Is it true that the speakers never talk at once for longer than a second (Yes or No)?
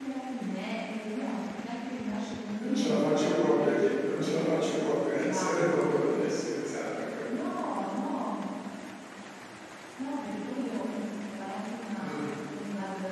No